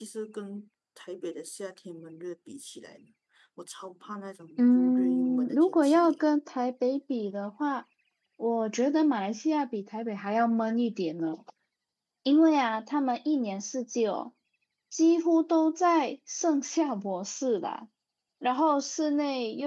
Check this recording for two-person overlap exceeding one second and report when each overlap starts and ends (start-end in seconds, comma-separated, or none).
4.6-6.2